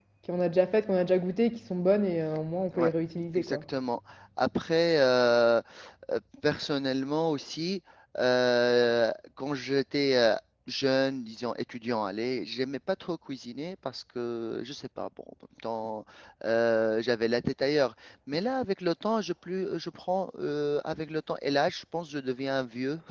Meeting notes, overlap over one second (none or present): none